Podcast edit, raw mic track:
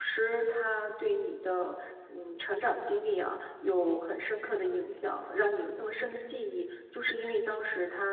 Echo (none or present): none